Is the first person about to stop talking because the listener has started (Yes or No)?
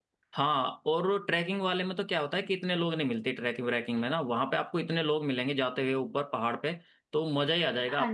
No